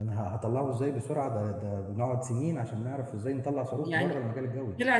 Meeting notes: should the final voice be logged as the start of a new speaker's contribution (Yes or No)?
Yes